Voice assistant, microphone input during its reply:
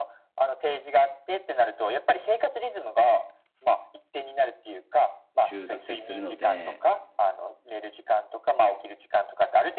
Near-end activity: present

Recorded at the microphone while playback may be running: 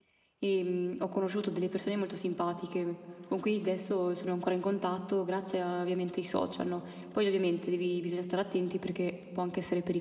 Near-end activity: present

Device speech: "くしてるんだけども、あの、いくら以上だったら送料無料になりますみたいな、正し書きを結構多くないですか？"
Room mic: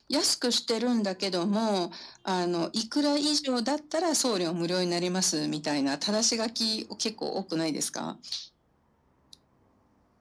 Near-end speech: none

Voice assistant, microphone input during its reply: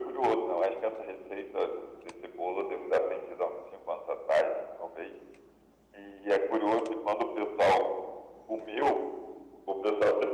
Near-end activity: none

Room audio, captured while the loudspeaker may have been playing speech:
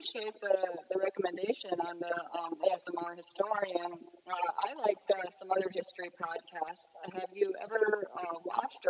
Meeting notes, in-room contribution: none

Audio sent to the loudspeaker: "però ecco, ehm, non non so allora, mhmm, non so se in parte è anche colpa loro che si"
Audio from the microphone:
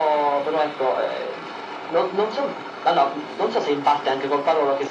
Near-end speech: none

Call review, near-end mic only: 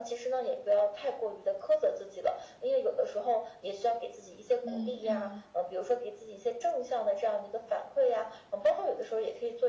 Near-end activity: present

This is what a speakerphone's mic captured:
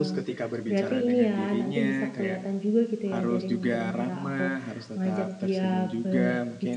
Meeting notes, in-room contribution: present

